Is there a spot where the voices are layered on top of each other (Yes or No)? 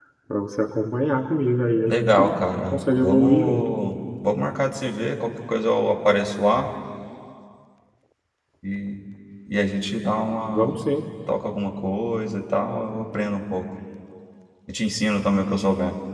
Yes